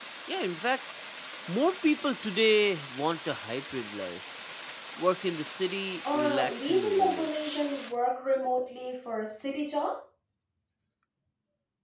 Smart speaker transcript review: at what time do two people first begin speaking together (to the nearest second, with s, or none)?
6 s